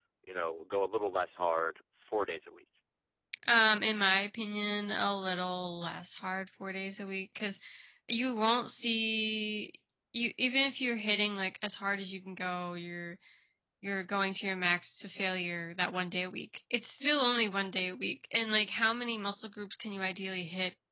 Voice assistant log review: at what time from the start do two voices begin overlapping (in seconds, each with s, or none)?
none